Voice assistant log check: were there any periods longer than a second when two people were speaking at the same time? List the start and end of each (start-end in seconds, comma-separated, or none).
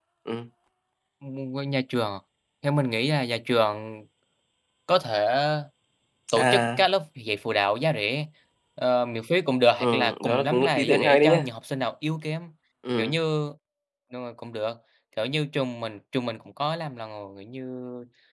9.8-11.5